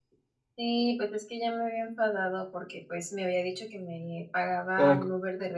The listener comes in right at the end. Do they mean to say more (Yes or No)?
No